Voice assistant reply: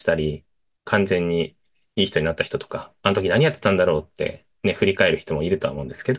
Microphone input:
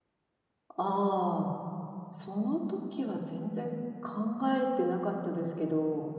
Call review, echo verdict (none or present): none